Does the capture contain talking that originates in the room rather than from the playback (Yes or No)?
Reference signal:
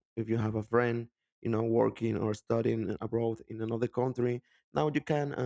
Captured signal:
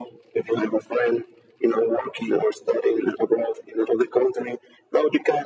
No